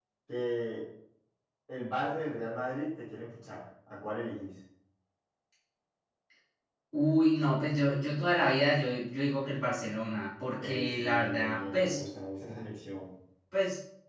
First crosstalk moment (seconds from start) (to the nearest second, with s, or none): 11 s